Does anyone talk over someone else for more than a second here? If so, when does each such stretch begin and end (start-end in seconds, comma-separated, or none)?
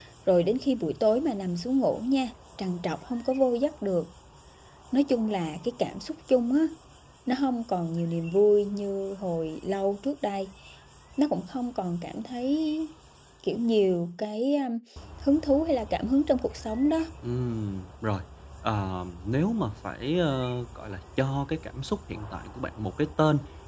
none